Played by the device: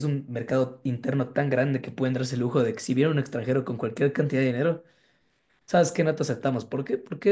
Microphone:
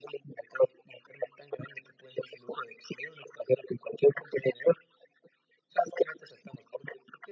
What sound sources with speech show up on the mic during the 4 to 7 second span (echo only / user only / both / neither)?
echo only